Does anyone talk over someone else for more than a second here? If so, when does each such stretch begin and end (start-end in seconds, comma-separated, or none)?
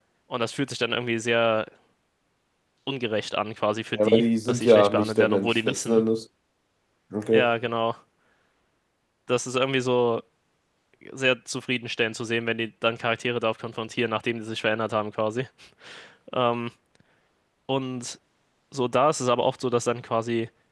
3.9-6.0